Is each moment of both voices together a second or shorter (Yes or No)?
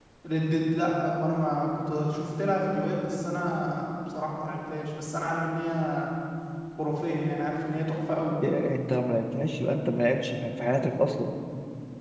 Yes